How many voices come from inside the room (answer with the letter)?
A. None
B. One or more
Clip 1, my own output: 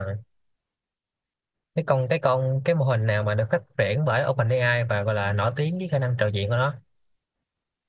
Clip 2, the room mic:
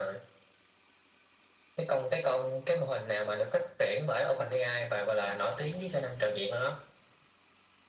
A